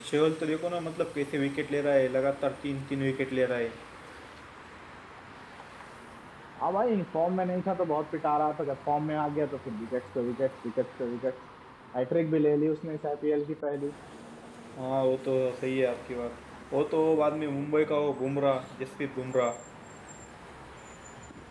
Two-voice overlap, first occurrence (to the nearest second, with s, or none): none